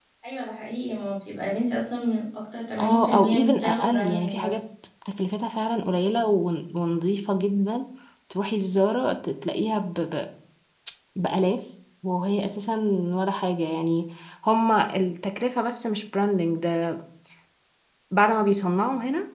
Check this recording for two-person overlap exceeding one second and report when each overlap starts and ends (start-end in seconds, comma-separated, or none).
2.8-4.6